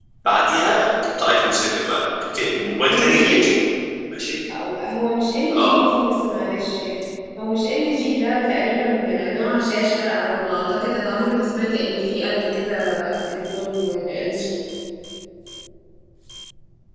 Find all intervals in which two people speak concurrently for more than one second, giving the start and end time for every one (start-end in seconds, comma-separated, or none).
none